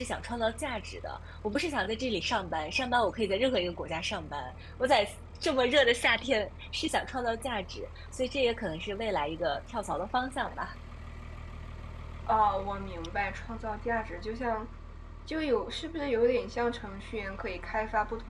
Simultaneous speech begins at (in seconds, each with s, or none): none